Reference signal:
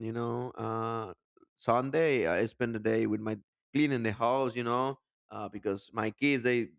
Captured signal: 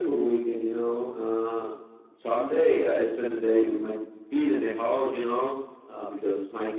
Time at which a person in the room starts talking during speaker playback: none

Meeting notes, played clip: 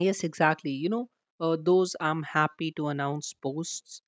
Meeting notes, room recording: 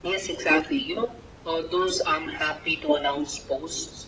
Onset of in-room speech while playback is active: none

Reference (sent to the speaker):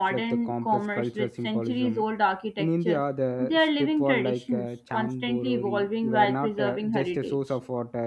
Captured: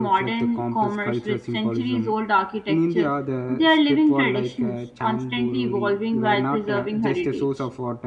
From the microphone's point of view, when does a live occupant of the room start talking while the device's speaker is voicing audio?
none

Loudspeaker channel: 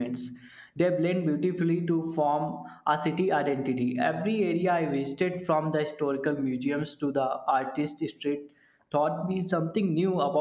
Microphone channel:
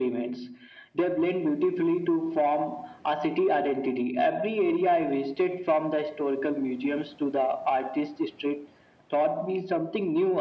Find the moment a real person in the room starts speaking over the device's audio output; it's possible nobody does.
none

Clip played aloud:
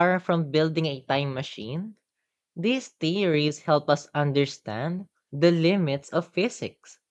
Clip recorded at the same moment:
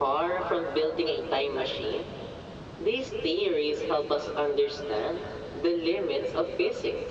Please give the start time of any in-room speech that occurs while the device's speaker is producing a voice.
none

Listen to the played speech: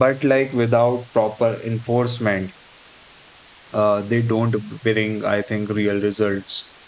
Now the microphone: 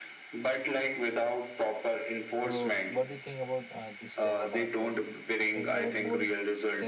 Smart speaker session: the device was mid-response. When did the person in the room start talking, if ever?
2 s

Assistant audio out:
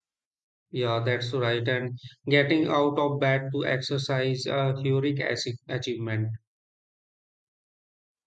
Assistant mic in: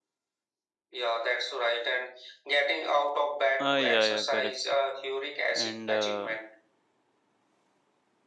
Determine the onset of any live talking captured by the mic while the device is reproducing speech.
4 s

